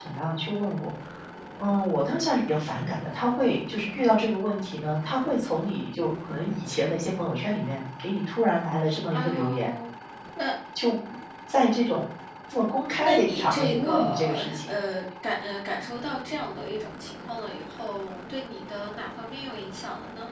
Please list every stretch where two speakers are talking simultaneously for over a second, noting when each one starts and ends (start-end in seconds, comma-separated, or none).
13.0-14.6